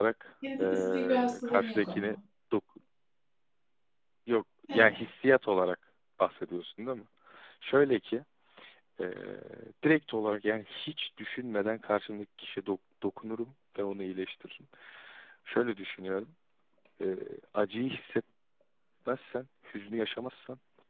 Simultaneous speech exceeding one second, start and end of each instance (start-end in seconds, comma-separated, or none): 0.6-2.2